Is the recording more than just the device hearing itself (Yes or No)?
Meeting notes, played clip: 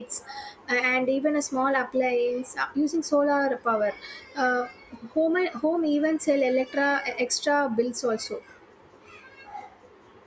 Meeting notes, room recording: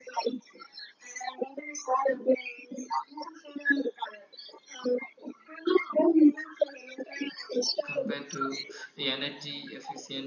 Yes